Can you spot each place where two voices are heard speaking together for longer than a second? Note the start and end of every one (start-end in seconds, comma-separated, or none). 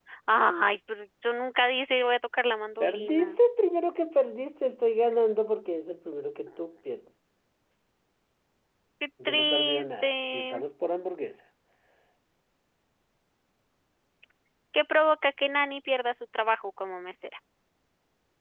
9.2-10.6